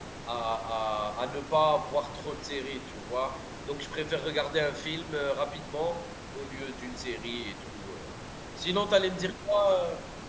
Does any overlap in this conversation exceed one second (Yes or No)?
No